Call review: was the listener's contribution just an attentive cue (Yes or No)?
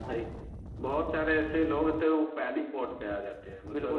No